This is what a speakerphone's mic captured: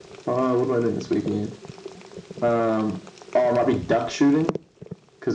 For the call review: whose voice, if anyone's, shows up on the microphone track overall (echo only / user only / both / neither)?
echo only